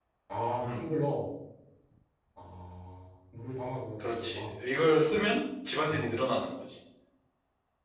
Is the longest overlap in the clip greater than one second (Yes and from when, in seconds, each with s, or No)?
No